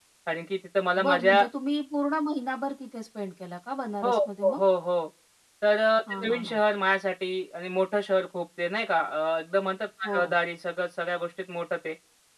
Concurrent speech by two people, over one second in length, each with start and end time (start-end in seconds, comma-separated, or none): none